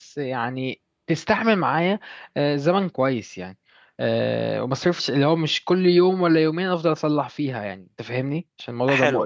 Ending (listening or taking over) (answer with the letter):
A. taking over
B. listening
A